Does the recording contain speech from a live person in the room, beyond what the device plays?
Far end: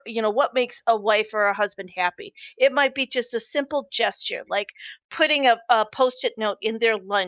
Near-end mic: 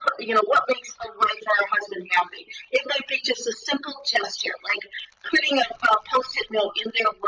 No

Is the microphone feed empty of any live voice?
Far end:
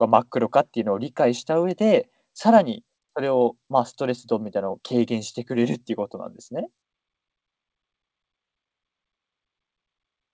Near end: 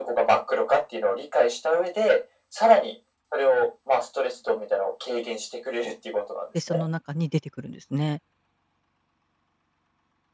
No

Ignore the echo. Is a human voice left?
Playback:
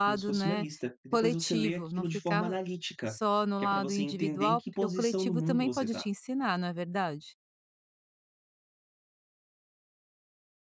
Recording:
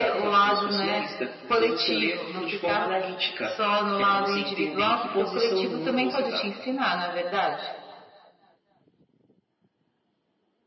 No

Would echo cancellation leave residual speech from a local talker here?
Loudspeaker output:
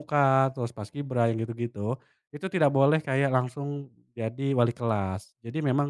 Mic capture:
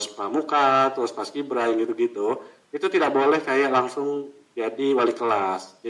No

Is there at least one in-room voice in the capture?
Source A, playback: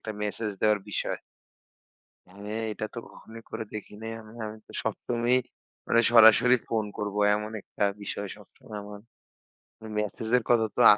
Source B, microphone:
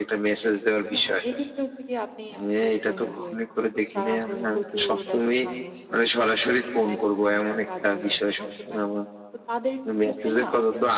Yes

